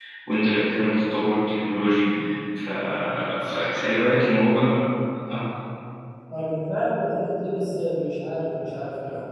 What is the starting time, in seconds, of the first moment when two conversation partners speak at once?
none

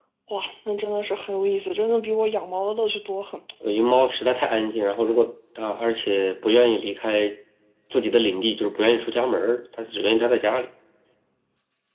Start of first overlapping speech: none

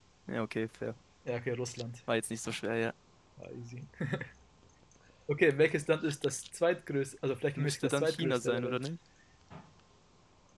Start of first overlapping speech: 7.6 s

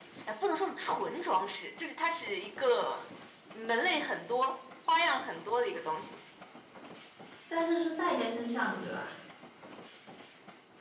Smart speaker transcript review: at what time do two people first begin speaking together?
none

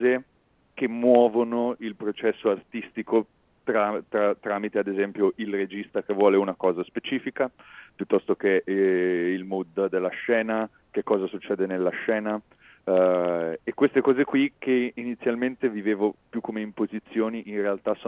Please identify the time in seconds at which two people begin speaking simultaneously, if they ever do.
none

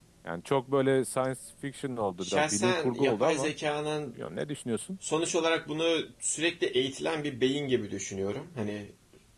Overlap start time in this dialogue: 2.2 s

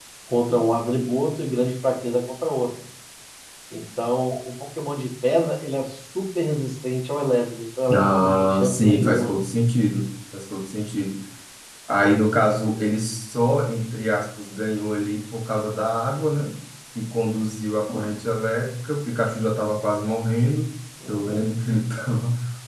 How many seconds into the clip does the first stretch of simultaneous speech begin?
8.0 s

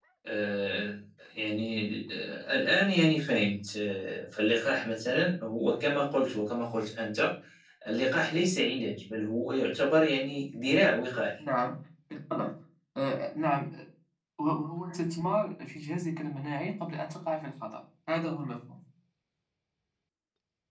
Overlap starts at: none

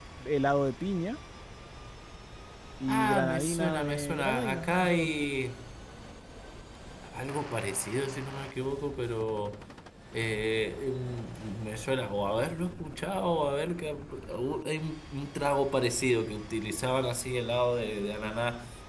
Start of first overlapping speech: 2.9 s

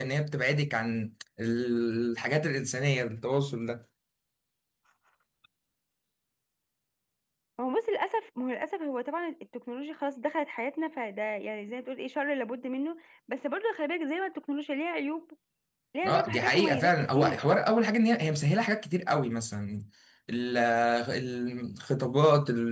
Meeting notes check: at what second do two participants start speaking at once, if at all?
16.1 s

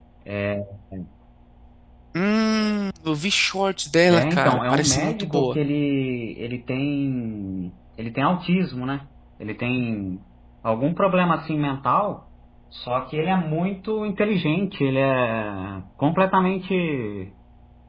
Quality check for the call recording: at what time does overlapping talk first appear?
4.1 s

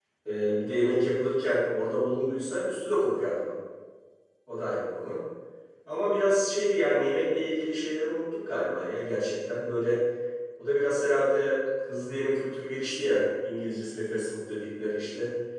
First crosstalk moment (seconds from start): none

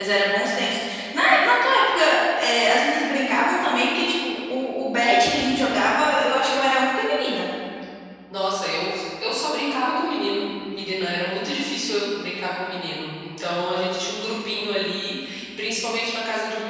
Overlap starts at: none

